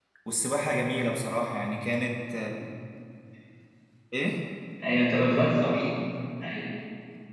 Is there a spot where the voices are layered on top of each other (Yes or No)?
No